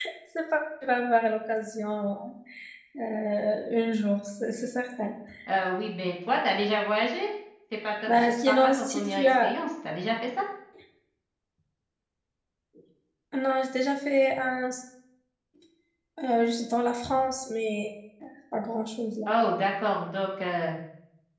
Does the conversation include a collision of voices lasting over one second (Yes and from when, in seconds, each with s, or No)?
Yes, from 8.1 s